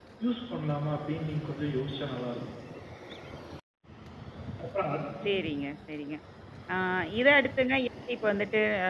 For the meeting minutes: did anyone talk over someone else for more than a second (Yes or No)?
No